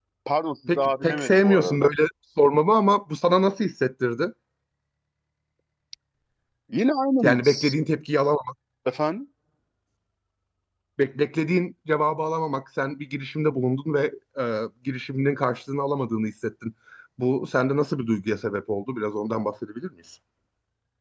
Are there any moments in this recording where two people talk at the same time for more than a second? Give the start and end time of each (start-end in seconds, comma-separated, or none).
0.7-1.9